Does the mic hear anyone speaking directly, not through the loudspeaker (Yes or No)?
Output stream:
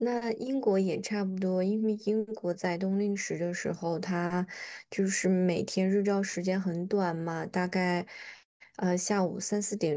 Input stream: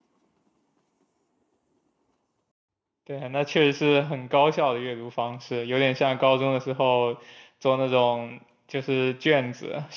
Yes